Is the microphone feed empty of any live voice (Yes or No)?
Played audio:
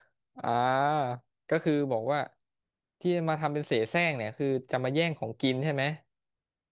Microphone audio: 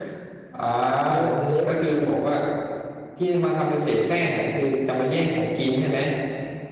No